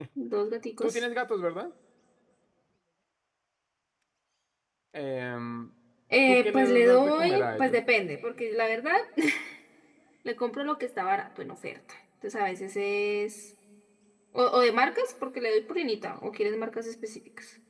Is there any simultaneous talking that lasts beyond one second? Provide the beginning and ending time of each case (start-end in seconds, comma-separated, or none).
6.3-7.8